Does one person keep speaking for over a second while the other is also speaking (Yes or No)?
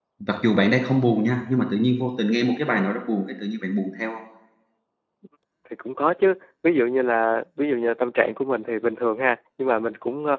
No